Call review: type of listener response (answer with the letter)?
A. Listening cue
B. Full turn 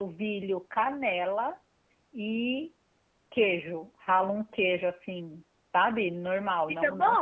A